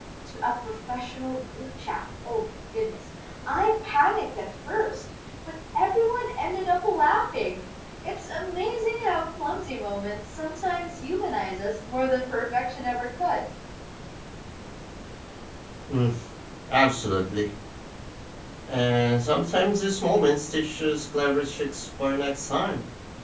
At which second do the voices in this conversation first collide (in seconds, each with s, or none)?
none